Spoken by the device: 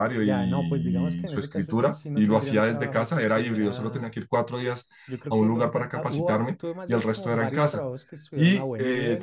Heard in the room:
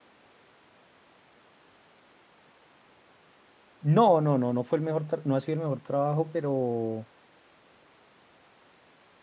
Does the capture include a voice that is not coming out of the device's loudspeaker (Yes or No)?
Yes